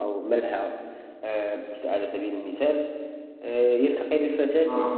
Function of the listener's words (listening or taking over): listening